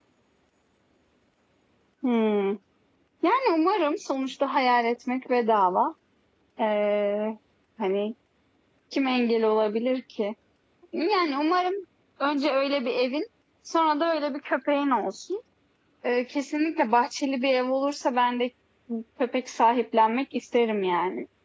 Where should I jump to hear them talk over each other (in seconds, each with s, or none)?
none